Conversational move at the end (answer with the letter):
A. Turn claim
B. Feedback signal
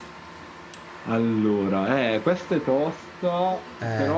B